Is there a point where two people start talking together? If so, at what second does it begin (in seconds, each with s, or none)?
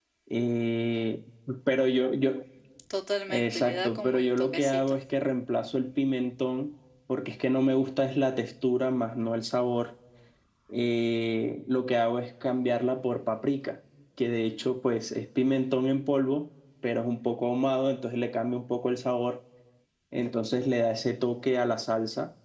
3.3 s